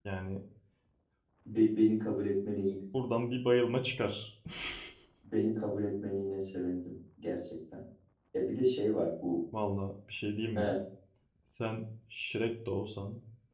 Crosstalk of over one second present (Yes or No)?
No